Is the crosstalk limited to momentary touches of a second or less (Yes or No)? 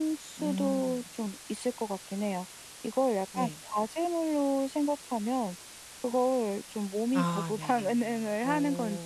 No